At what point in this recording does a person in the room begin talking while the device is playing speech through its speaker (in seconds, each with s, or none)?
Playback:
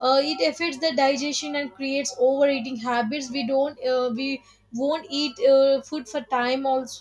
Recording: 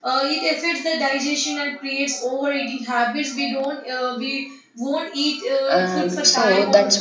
5.7 s